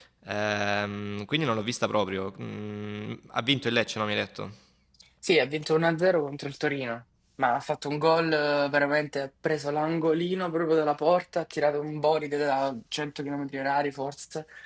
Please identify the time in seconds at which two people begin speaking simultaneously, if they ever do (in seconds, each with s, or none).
none